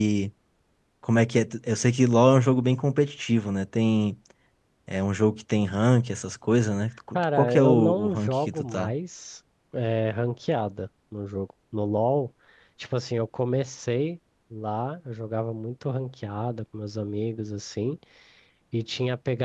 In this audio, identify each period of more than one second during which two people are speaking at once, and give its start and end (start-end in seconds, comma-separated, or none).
7.1-8.9